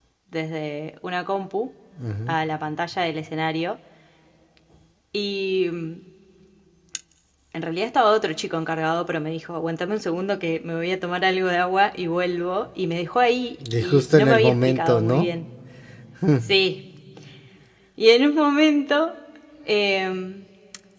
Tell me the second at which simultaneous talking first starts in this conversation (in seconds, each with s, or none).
13.6 s